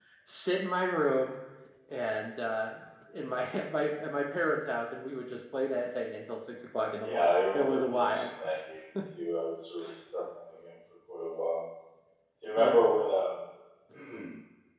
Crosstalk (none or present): present